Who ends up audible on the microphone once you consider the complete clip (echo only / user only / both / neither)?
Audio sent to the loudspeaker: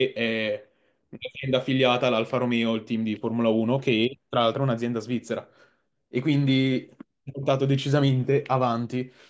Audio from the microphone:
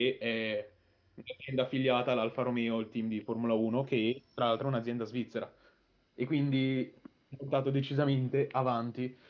echo only